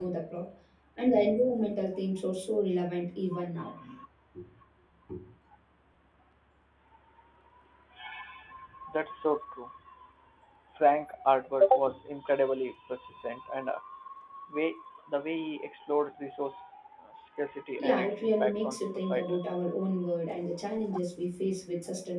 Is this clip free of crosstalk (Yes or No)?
No